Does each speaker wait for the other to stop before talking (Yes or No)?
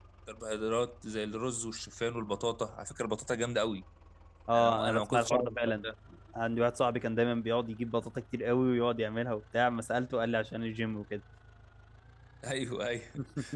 No